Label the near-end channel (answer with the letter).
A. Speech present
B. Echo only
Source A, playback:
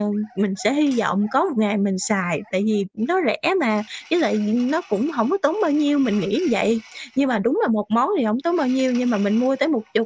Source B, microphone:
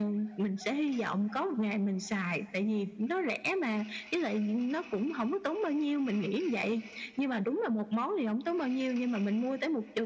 B